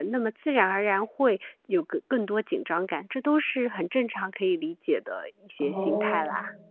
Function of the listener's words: taking over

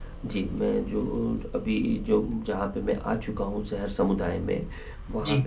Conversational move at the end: listening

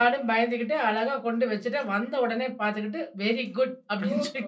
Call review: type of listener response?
taking over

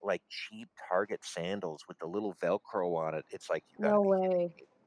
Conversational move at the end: listening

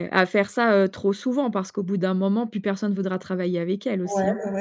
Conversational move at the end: taking over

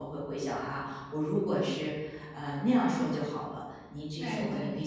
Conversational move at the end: listening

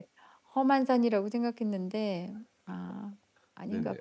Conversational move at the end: taking over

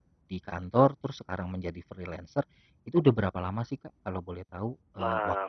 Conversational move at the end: taking over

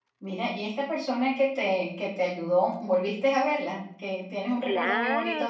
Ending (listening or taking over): taking over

